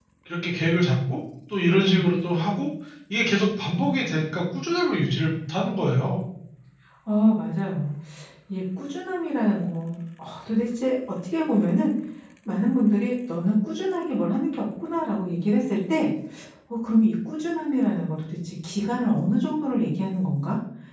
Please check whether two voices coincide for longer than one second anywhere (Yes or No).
No